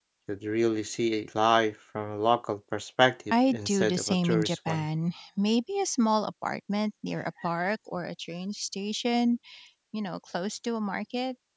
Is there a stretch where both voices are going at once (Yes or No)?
Yes